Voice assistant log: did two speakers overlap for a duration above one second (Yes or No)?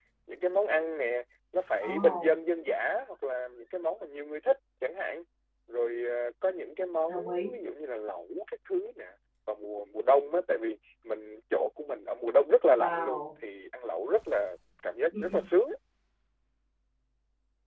No